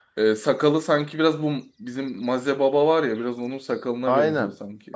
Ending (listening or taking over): taking over